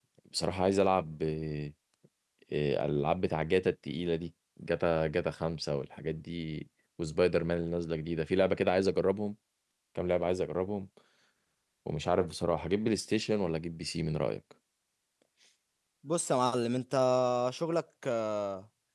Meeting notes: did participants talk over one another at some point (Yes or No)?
No